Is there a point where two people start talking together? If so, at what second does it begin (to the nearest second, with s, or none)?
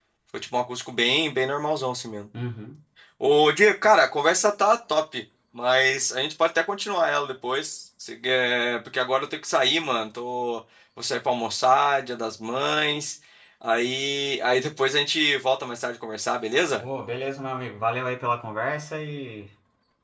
none